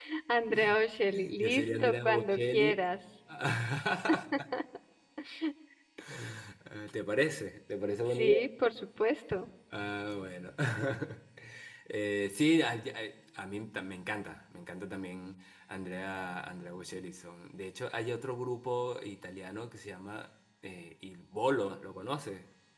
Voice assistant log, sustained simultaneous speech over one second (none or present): present